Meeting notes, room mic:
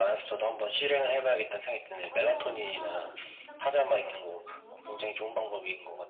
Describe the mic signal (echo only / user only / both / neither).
both